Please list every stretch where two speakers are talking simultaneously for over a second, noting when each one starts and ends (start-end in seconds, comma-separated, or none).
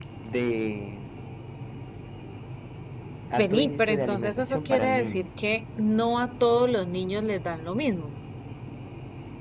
3.4-5.3